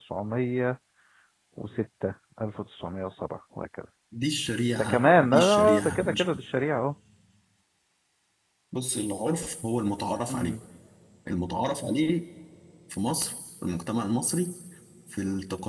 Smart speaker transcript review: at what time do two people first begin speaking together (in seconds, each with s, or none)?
4.8 s